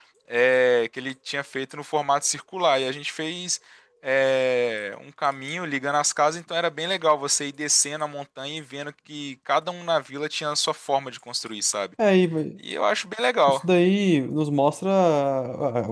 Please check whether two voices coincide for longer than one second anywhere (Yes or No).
No